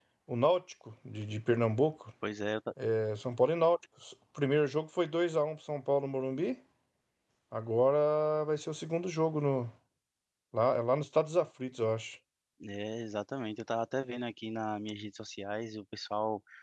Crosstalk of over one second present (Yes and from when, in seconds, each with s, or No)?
No